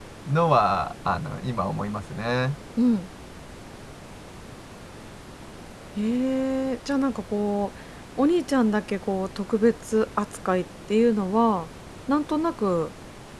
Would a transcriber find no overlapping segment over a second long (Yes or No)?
Yes